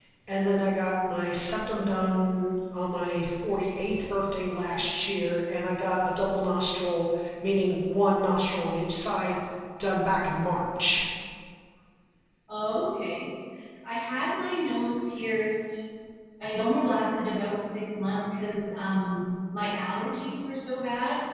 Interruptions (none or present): none